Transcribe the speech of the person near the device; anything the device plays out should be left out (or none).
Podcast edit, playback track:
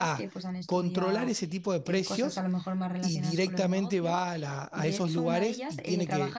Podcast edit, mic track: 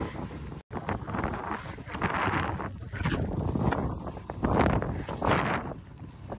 none